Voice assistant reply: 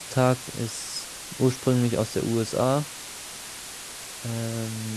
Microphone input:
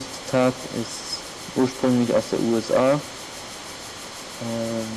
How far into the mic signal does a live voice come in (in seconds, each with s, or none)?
none